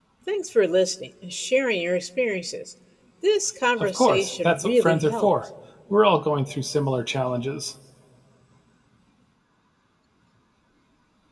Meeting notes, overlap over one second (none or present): present